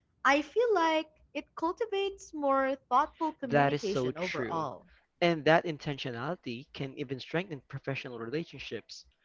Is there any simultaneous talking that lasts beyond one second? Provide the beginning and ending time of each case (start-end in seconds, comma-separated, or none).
3.4-4.6